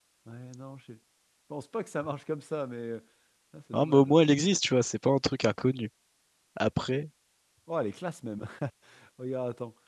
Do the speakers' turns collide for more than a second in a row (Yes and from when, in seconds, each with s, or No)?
No